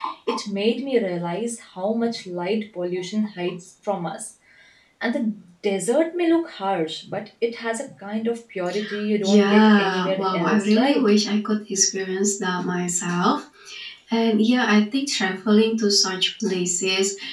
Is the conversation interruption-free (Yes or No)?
No